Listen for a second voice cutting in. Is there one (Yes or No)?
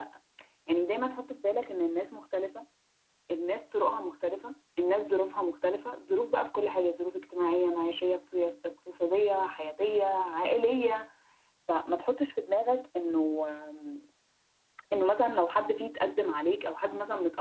No